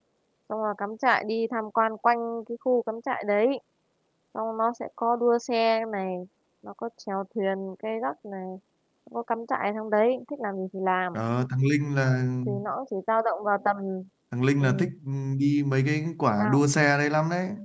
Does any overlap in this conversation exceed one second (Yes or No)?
No